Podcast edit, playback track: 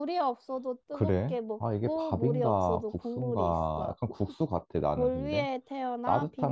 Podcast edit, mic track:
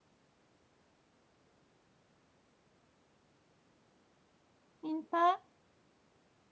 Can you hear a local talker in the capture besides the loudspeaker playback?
Yes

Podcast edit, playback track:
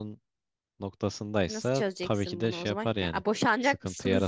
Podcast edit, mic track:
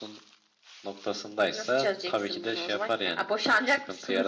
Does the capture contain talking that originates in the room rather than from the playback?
No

